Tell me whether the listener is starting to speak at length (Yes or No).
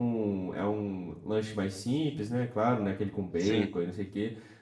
No